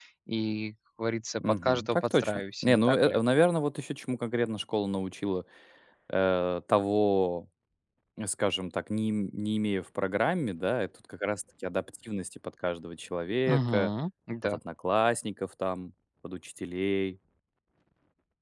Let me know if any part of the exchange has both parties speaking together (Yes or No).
Yes